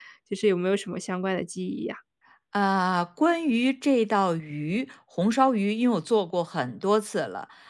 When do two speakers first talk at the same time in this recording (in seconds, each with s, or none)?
none